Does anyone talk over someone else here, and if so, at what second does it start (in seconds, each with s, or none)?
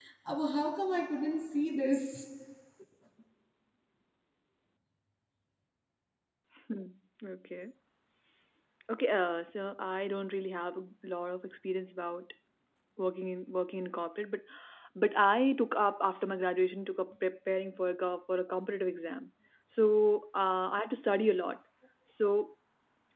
none